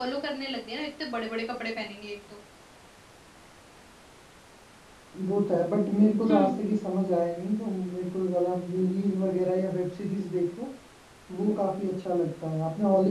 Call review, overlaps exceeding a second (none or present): none